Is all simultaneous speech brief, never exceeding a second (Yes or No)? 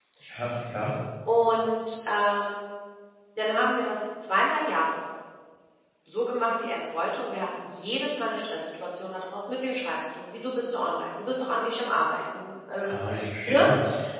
Yes